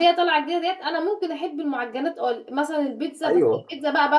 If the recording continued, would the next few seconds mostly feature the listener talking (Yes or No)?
No